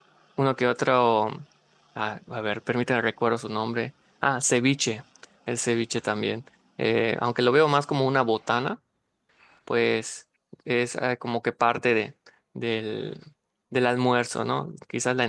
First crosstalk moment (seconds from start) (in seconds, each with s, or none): none